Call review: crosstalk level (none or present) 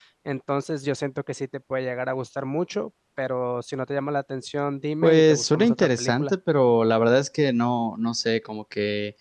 present